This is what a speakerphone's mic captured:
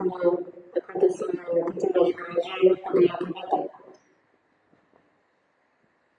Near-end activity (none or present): none